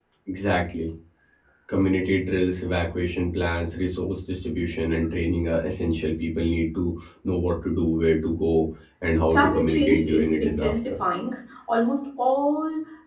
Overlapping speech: Yes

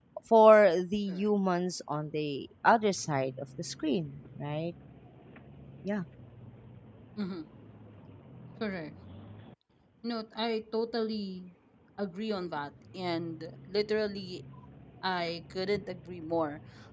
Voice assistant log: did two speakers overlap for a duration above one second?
No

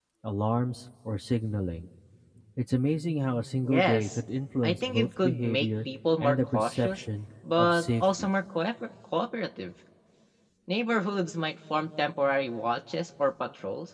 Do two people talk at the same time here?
Yes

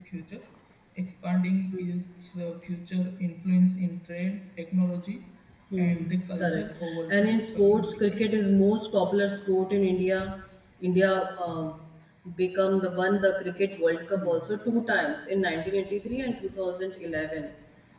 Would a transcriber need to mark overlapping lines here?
Yes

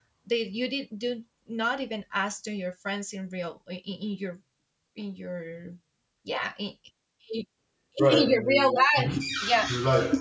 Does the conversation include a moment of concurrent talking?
Yes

